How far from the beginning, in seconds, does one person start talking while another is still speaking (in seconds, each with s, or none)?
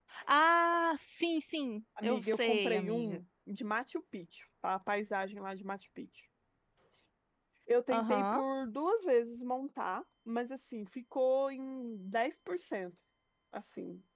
2.0 s